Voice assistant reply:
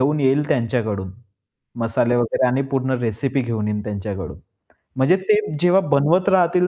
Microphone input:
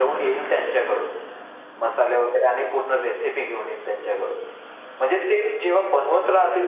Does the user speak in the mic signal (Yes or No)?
No